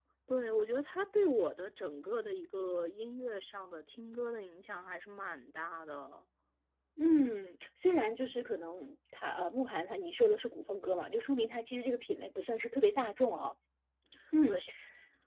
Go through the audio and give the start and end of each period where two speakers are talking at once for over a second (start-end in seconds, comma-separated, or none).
none